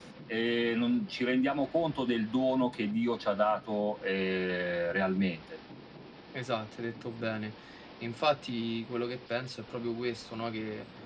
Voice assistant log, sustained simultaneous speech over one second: none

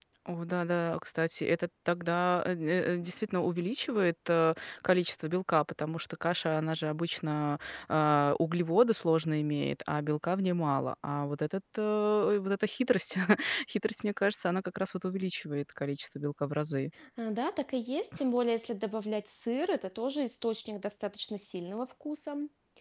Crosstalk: none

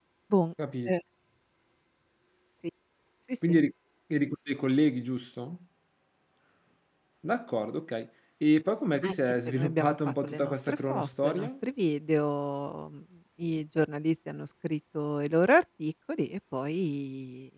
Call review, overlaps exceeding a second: present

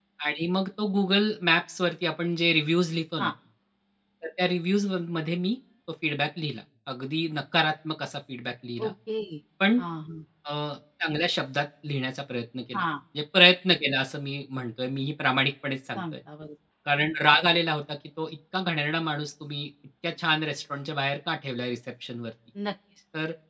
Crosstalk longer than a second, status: none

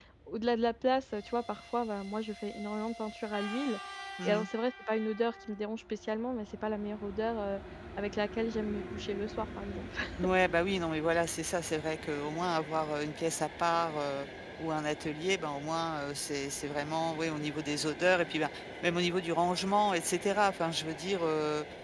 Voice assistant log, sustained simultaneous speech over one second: none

